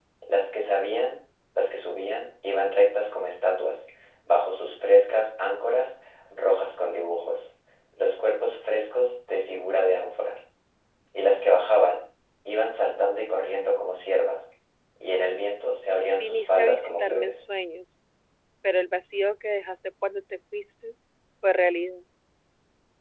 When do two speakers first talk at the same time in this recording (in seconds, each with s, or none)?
16.2 s